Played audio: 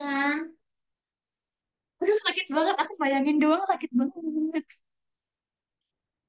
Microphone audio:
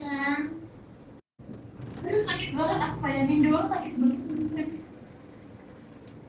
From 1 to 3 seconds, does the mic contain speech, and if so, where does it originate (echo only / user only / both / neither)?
echo only